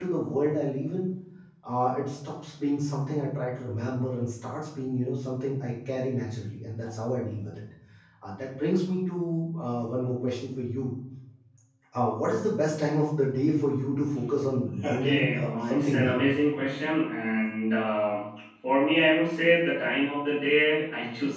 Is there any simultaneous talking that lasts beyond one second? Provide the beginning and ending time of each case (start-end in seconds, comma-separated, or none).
14.8-16.1